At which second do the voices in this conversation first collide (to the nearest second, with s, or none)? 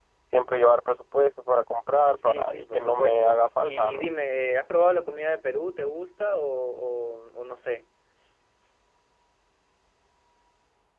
2 s